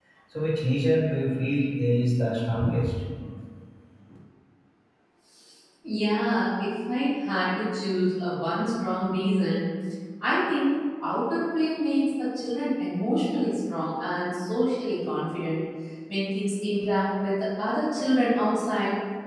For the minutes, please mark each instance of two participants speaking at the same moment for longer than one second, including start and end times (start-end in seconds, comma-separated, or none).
none